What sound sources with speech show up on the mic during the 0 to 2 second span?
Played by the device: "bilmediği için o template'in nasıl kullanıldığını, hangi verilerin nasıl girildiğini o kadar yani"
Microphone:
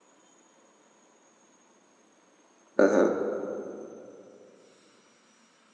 neither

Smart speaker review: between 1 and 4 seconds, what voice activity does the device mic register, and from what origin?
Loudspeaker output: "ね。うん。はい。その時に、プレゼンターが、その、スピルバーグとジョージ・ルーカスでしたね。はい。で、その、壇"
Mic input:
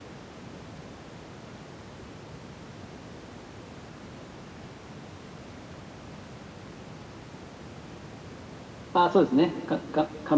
neither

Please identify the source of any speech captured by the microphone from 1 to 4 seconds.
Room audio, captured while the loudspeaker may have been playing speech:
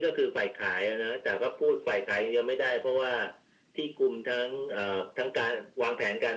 echo only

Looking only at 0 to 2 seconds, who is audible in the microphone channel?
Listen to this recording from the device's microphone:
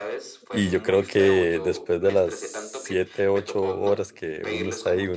both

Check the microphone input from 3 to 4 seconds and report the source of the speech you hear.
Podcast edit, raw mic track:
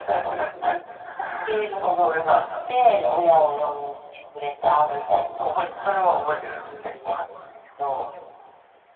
echo only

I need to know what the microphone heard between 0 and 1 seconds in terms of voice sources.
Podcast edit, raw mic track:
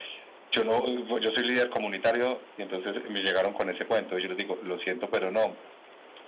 both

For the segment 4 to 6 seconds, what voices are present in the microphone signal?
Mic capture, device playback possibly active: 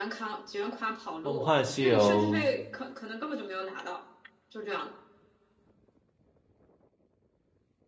echo only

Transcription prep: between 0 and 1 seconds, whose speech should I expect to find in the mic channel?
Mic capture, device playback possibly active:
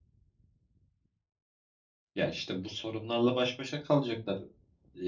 neither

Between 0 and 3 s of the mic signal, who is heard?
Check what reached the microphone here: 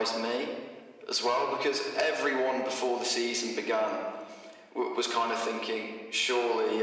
echo only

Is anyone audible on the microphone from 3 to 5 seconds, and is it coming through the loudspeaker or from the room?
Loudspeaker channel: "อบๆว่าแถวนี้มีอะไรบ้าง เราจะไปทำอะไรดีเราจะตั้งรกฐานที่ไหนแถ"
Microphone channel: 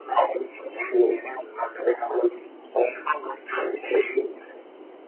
echo only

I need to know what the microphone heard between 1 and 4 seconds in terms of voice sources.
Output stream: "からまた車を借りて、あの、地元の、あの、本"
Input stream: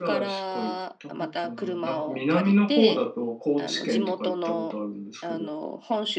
both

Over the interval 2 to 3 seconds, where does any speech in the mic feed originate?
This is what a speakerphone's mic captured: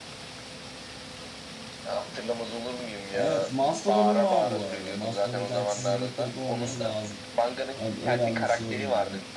echo only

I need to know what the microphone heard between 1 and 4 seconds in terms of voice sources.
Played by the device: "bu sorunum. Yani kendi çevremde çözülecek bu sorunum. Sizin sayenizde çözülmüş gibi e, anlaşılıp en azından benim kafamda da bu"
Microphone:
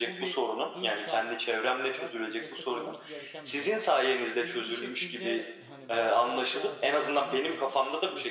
both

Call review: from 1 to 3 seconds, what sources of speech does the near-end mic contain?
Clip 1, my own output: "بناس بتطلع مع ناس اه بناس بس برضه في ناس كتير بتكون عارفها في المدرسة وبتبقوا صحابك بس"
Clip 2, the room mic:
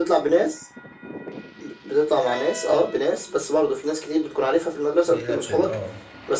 echo only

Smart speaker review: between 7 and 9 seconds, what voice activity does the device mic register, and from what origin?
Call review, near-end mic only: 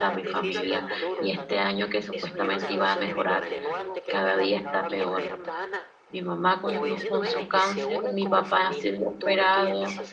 both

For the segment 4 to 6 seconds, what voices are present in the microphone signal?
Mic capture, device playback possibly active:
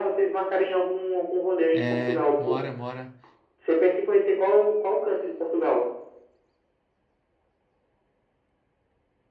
echo only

